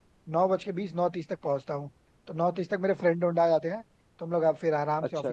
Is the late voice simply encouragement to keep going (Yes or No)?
Yes